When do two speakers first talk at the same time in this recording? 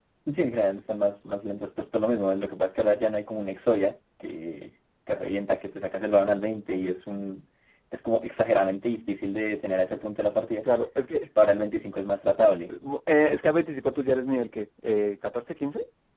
none

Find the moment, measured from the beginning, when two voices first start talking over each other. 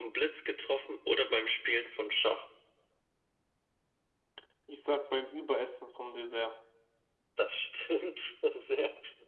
none

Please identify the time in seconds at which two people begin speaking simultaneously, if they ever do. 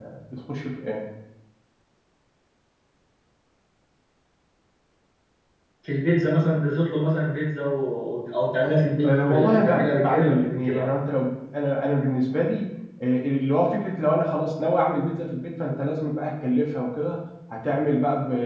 9.0 s

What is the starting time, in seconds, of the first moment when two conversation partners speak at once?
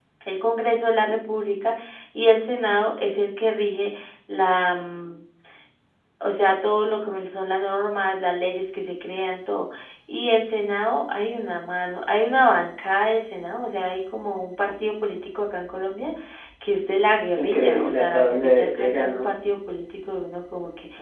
17.4 s

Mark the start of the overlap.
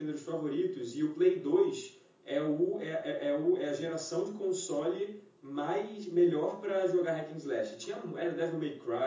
none

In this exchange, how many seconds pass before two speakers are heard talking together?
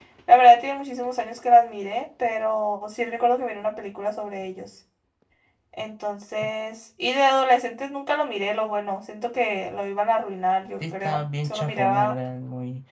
10.8 s

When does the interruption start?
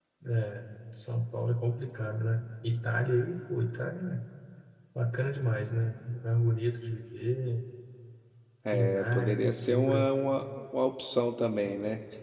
8.7 s

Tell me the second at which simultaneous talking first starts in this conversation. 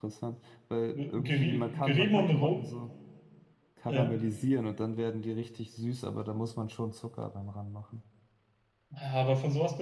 0.9 s

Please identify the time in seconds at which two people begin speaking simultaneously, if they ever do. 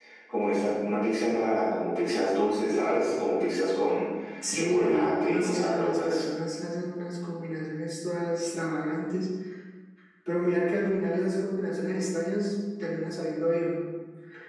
4.5 s

